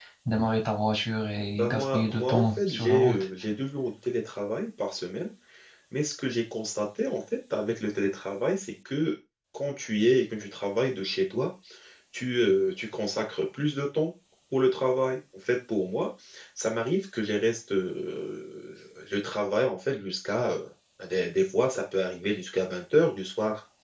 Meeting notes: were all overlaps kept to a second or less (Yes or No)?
No